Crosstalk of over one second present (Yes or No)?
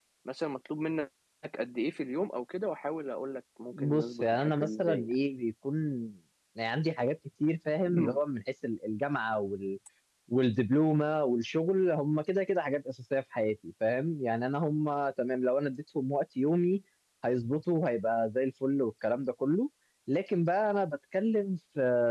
Yes